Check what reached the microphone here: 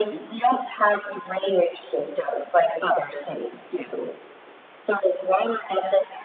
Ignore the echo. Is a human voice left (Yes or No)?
No